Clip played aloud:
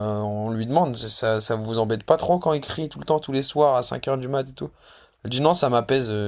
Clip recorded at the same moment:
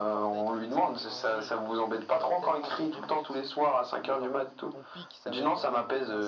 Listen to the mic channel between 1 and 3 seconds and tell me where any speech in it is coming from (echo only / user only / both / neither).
both